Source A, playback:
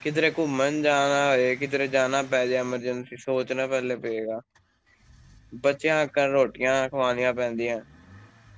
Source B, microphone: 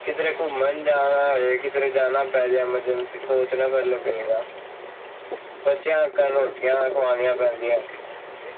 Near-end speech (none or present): none